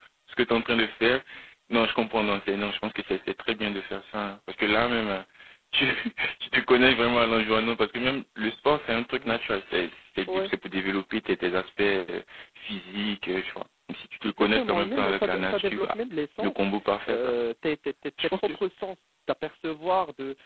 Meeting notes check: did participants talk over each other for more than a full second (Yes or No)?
Yes